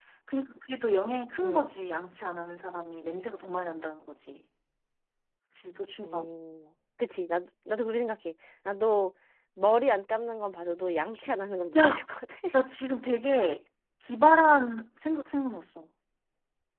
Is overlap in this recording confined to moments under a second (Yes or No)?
Yes